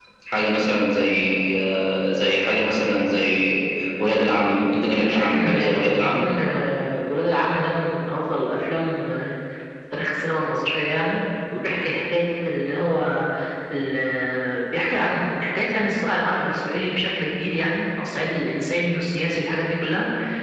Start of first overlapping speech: 5.0 s

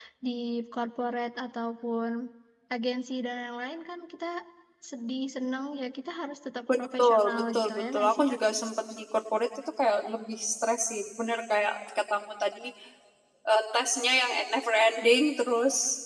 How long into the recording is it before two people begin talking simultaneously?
6.7 s

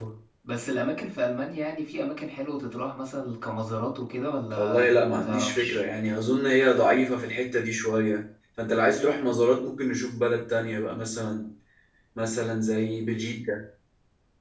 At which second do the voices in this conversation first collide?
4.5 s

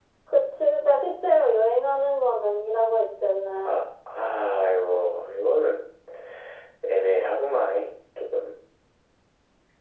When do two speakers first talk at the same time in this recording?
none

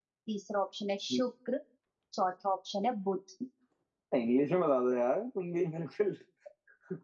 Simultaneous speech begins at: none

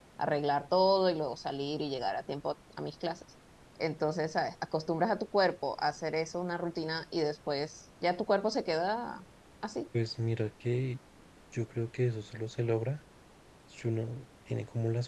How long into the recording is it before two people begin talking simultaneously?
none

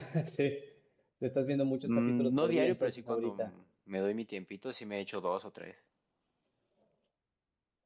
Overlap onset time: 1.8 s

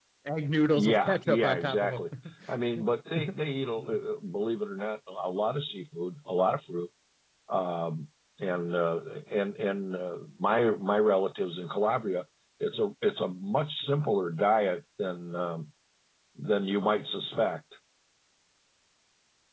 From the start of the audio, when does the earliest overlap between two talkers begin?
0.8 s

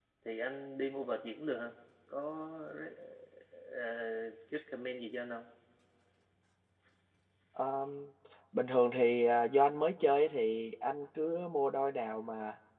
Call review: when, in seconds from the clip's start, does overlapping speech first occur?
none

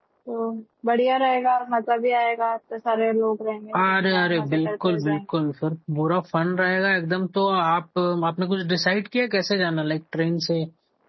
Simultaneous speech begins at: 3.7 s

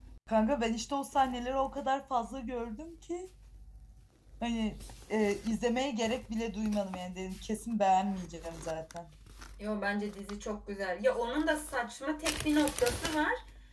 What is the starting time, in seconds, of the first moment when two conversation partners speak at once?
none

